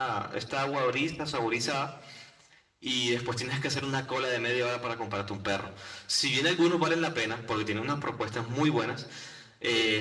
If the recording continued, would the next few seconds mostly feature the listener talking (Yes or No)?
No